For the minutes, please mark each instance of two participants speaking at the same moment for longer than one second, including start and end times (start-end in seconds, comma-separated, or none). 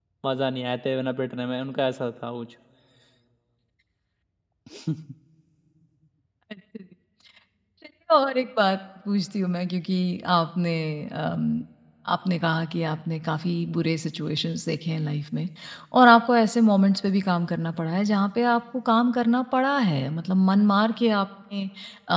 none